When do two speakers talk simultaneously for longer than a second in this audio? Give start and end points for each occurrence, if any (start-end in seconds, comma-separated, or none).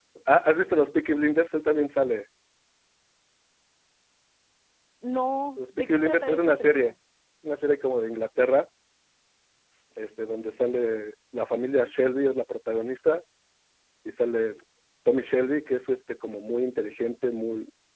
5.6-6.9